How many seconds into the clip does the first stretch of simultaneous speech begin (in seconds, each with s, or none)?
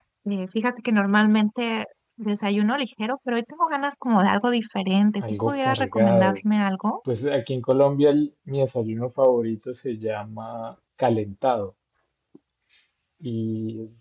5.2 s